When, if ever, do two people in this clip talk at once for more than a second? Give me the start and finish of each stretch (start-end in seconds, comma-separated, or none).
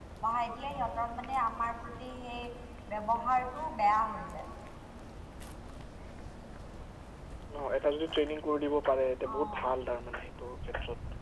none